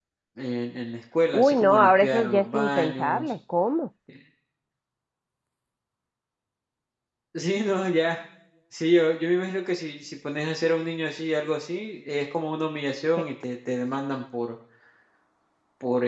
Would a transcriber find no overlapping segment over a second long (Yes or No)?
No